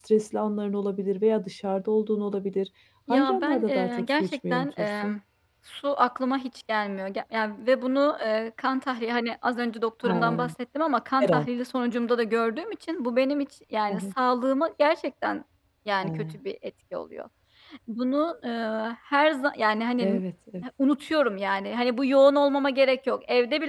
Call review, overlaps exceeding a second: present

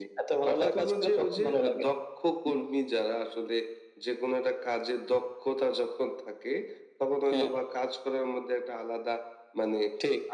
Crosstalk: present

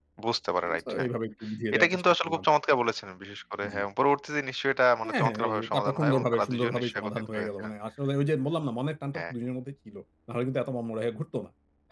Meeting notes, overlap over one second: present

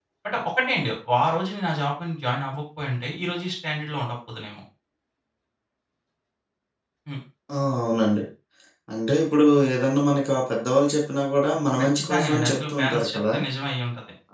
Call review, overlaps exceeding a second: present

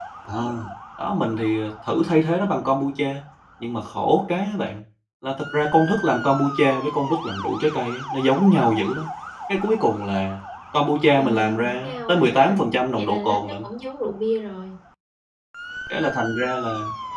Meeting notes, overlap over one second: present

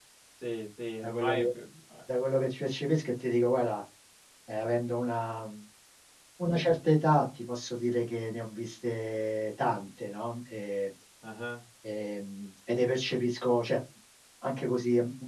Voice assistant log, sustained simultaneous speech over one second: none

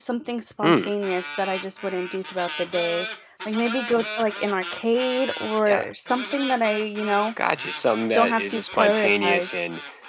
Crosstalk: present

